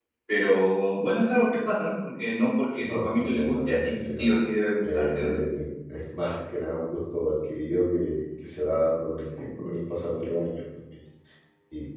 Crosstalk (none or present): present